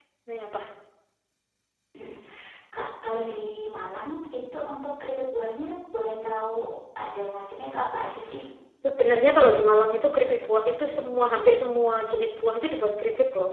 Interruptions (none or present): none